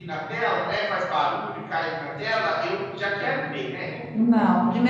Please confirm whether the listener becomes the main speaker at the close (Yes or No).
Yes